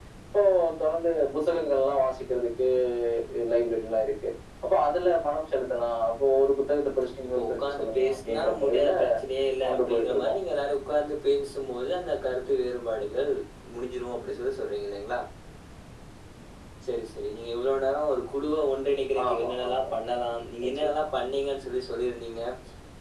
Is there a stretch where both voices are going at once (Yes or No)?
Yes